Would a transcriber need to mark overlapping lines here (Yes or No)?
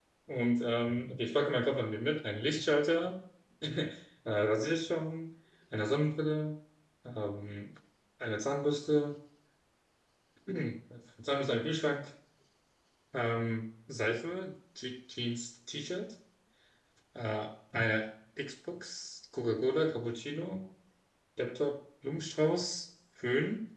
No